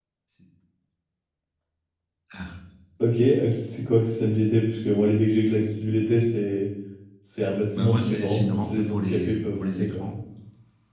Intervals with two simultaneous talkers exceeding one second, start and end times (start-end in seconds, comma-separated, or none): 7.8-10.1